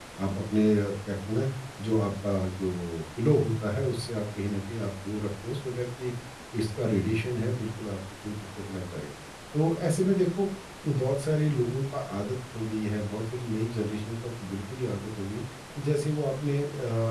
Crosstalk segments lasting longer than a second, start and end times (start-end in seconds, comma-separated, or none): none